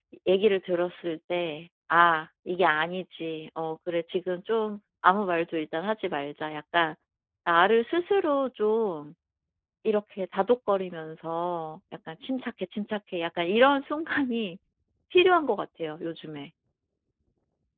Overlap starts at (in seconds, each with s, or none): none